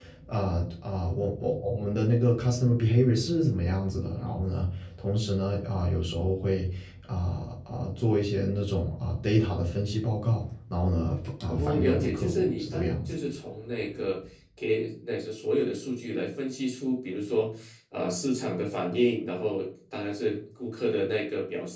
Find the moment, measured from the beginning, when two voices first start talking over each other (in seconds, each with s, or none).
11.5 s